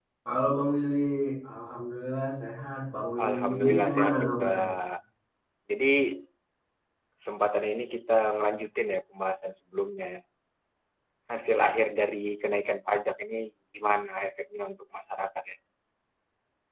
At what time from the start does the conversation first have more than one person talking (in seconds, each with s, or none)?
3.2 s